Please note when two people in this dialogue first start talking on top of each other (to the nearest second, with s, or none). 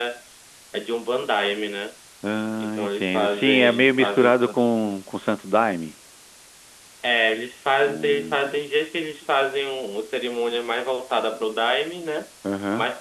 3 s